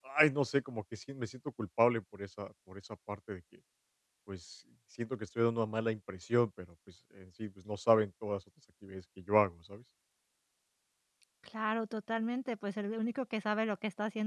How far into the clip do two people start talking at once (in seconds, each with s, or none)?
none